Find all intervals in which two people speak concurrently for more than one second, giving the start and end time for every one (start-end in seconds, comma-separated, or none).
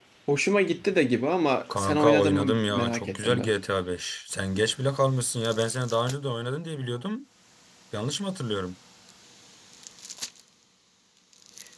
1.8-3.5